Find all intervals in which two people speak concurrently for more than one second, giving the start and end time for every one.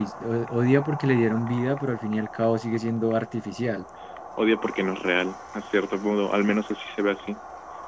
none

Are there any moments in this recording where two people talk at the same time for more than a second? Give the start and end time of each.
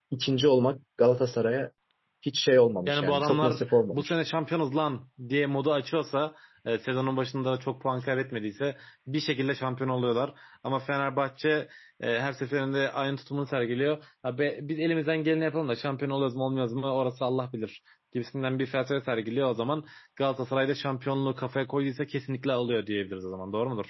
2.9-4.1

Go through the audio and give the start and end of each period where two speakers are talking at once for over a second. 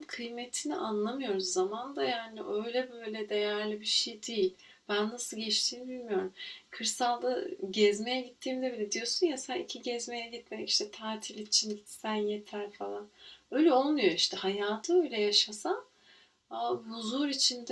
none

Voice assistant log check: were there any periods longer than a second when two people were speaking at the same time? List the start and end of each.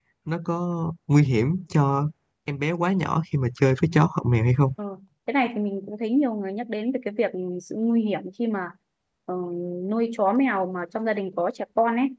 none

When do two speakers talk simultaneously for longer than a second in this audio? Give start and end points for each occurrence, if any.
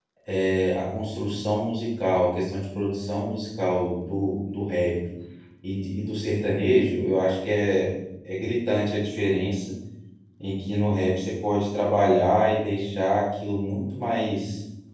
none

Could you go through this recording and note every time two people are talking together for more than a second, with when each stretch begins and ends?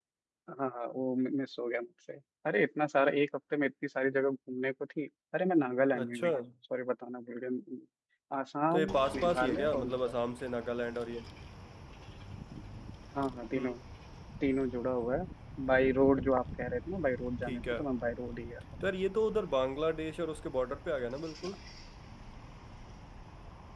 8.7-10.1

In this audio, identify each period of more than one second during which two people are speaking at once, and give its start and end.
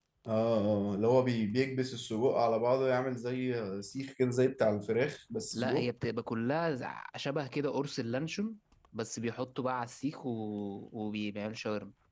none

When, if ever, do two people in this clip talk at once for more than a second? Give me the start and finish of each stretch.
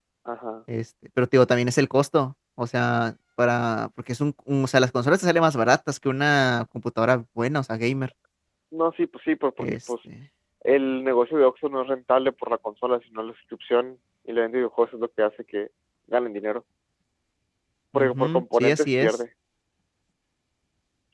17.9-19.2

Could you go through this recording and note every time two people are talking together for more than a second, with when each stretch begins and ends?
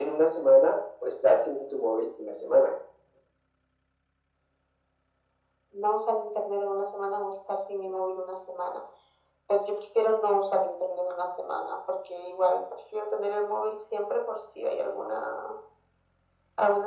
none

